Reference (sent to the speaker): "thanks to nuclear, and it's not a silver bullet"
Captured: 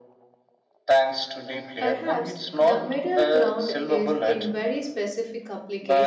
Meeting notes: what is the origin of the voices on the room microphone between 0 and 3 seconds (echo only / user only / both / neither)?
both